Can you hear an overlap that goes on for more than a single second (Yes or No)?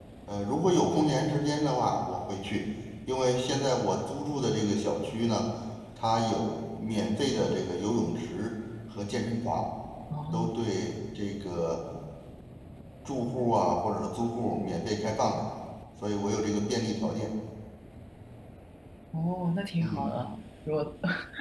No